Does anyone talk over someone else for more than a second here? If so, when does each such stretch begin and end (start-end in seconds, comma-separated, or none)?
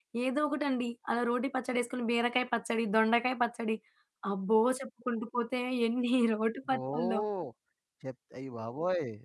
none